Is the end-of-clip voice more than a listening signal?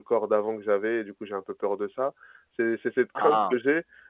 No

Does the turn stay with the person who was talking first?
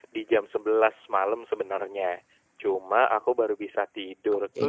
Yes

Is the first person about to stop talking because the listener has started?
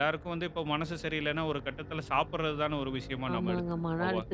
Yes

